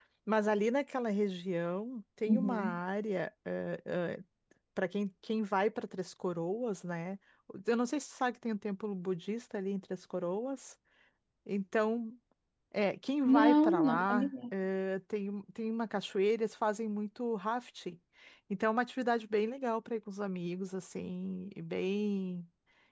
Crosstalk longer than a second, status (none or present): present